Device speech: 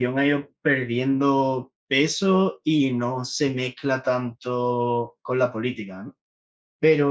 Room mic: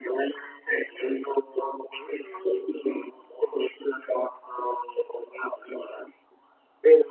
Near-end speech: none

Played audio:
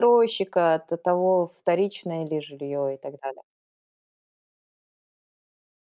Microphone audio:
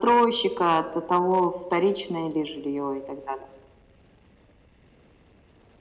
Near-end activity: none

